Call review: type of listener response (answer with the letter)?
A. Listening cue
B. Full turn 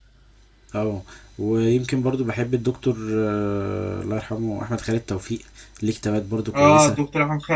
B